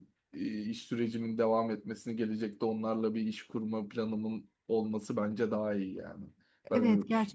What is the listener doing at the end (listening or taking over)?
taking over